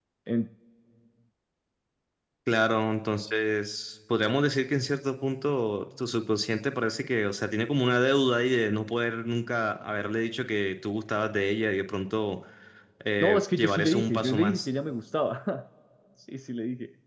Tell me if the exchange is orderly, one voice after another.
No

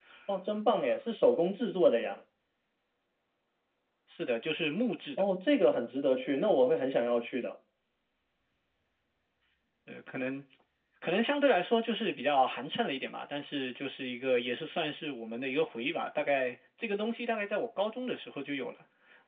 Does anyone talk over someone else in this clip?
No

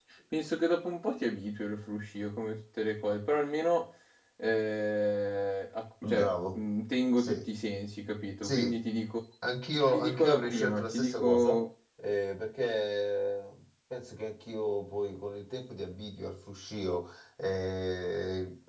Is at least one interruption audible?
Yes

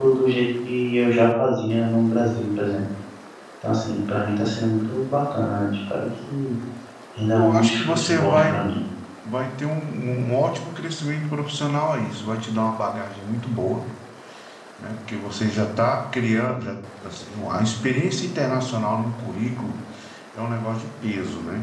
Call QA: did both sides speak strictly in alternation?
No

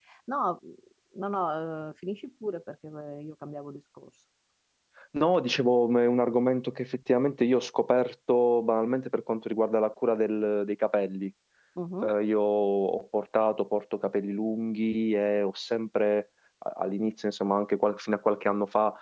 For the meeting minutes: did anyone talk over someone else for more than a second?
No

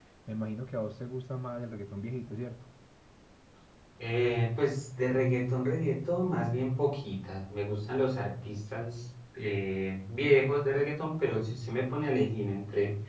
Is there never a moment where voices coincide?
Yes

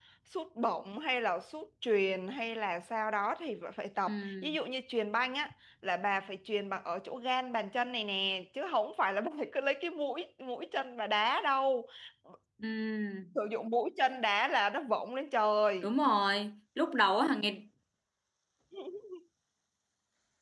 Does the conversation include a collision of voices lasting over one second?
No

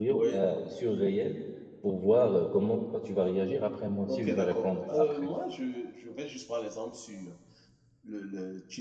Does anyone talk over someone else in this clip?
Yes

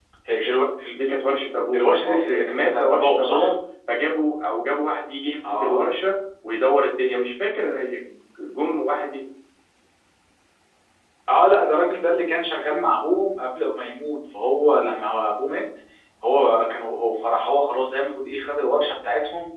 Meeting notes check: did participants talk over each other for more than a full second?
Yes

